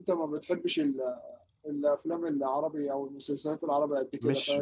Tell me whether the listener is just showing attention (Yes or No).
No